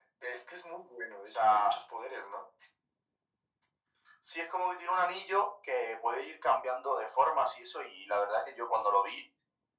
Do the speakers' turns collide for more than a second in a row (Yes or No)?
No